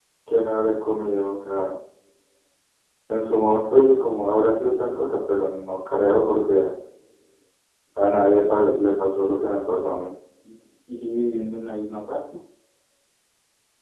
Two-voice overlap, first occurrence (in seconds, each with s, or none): none